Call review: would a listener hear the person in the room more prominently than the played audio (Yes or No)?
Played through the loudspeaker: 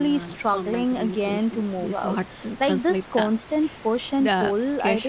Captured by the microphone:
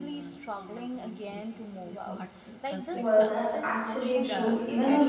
Yes